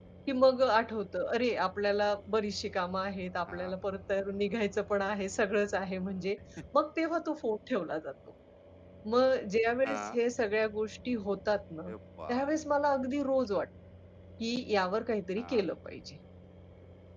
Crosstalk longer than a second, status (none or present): none